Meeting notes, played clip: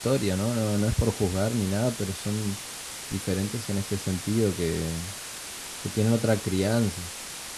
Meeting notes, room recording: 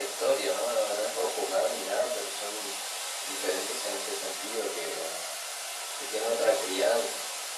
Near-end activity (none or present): none